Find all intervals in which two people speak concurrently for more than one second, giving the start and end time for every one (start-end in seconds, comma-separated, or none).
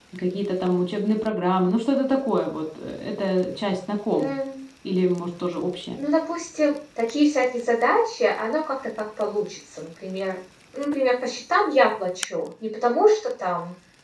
none